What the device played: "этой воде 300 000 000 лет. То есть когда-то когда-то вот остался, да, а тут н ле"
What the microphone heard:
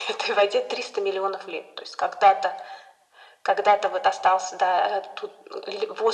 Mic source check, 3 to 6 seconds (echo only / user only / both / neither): echo only